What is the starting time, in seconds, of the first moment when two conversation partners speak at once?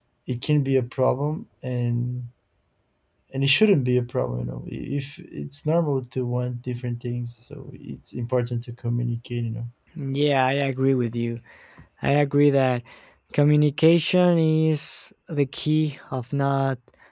none

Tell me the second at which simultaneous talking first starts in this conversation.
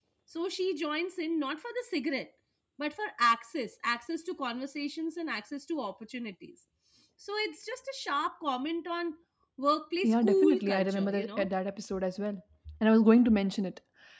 10 s

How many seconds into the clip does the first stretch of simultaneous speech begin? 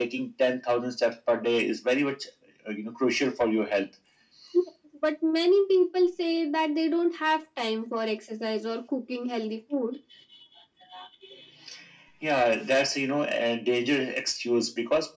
none

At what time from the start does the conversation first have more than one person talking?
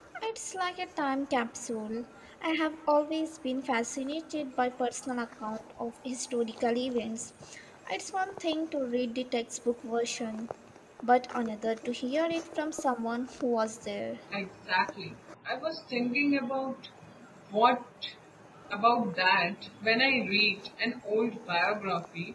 none

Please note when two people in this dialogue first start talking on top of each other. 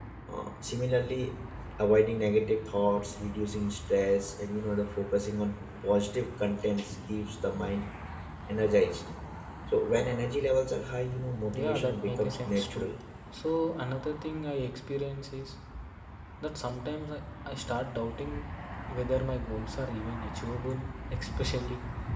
12 s

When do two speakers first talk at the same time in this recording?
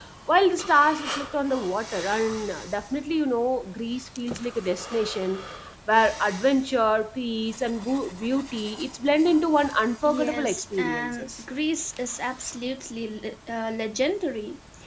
10 s

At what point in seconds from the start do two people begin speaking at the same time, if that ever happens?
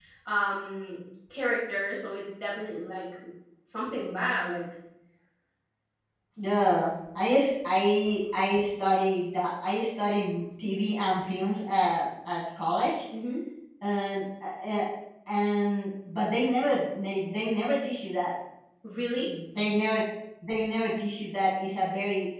none

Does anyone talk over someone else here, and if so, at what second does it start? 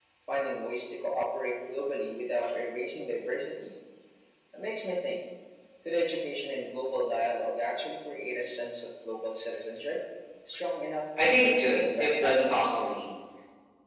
11 s

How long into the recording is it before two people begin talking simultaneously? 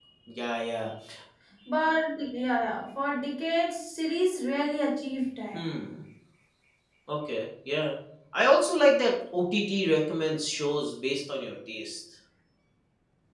none

